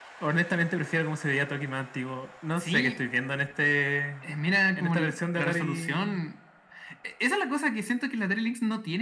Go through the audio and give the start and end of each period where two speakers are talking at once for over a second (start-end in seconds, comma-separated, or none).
4.8-6.2